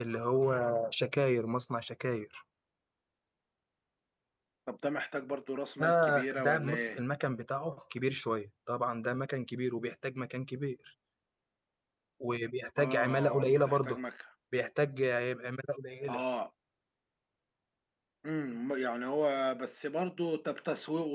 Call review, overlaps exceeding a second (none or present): present